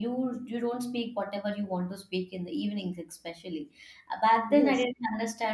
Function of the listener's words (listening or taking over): listening